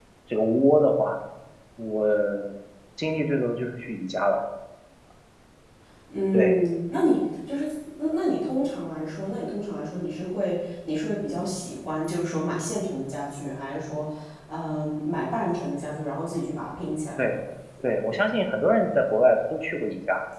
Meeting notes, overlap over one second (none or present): none